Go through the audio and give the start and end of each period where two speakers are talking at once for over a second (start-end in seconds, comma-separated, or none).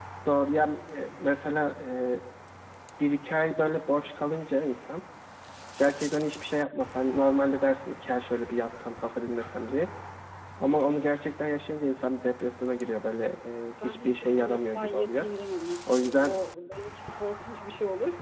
13.8-15.2